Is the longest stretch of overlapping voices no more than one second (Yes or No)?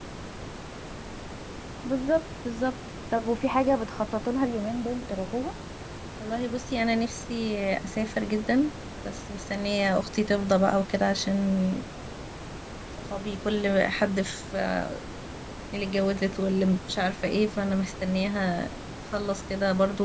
Yes